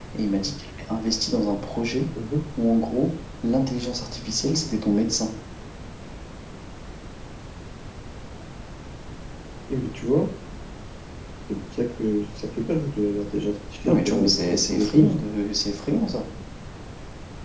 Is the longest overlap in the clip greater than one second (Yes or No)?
Yes